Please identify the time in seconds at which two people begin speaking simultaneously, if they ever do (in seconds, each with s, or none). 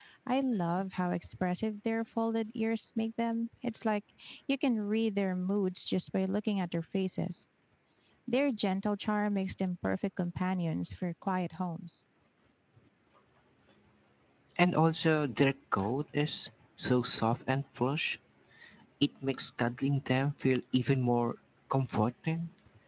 none